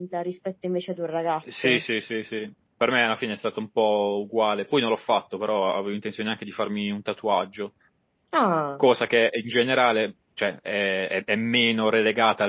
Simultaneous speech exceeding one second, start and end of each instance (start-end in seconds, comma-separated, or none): none